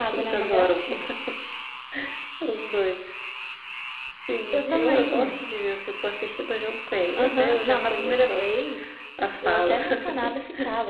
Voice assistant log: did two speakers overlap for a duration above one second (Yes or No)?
Yes